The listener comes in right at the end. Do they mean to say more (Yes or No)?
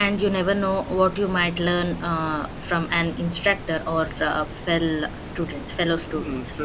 Yes